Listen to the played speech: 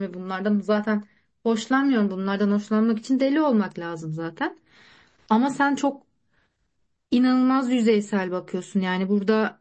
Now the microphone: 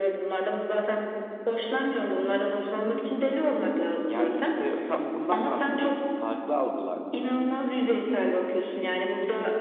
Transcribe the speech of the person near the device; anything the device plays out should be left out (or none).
Yani işte tam bundan bahsediyorum işte farklı algılar bunlar.